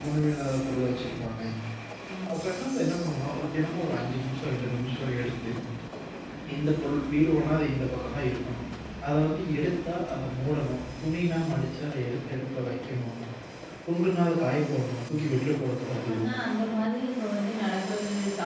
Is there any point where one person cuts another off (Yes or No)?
No